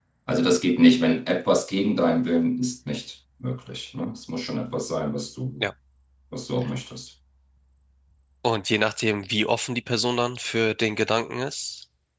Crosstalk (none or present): none